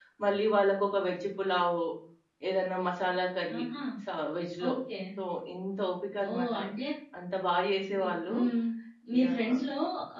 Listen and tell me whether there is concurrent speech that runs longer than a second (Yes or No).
No